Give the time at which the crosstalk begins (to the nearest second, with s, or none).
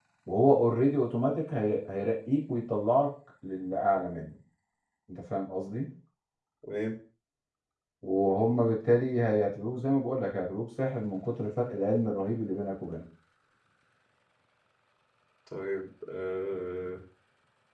none